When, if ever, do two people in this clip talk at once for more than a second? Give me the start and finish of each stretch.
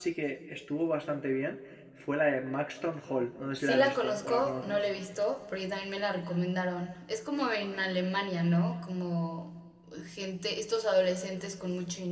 3.6-4.9

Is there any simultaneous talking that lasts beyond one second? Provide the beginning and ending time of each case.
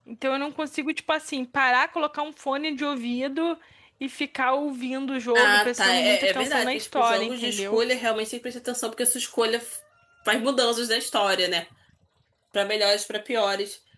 5.3-7.8

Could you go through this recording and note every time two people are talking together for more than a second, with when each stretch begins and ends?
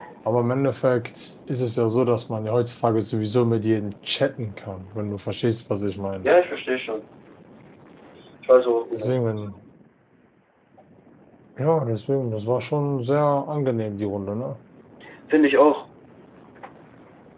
none

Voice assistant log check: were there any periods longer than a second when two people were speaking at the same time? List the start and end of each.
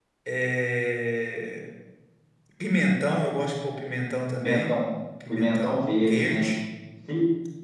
5.3-6.5

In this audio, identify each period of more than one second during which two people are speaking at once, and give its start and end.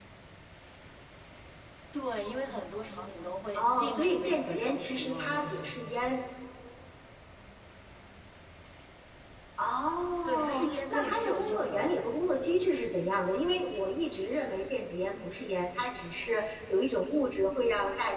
3.6-5.7, 10.2-12.0

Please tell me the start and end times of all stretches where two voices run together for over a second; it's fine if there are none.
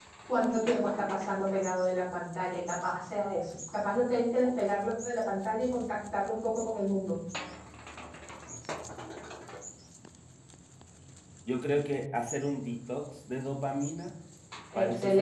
none

